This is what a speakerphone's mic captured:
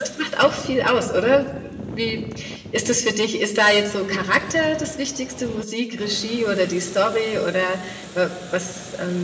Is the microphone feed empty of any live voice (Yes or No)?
Yes